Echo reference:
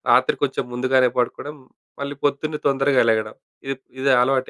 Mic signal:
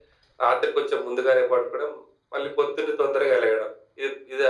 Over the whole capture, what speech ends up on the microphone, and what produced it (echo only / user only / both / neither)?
echo only